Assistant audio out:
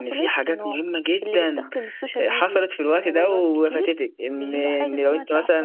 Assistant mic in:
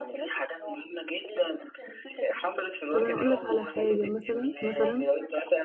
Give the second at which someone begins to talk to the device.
2.9 s

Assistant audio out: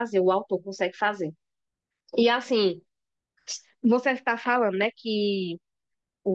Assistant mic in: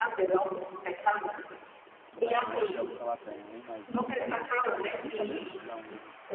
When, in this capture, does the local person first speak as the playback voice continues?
2.1 s

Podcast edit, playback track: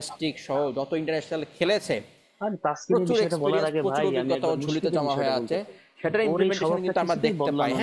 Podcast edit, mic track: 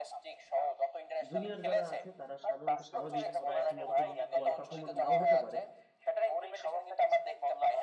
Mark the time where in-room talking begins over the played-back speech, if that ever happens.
1.3 s

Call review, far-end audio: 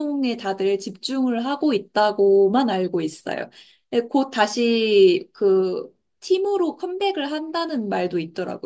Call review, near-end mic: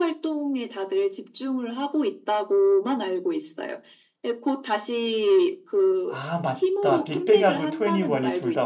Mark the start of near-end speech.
6.1 s

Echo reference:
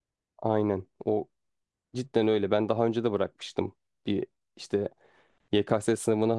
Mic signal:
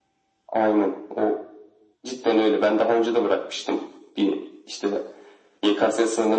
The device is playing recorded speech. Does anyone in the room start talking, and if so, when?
none

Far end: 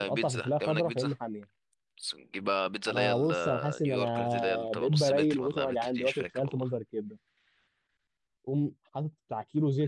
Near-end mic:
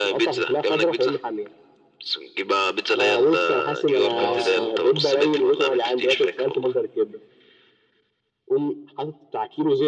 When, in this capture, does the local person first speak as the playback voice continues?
3.9 s

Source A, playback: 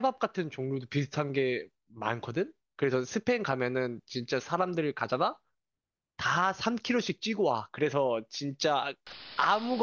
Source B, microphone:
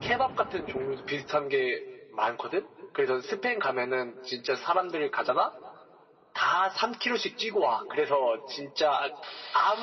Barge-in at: none

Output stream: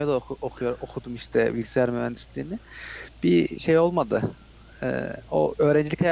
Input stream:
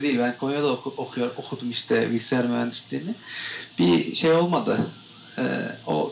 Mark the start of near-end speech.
none

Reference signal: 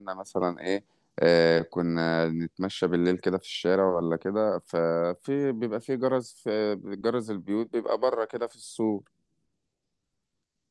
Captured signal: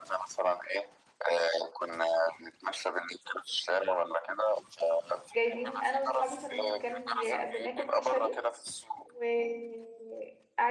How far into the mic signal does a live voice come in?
5.4 s

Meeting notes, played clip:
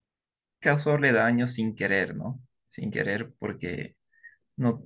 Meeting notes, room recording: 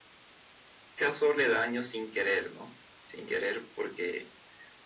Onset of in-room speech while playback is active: none

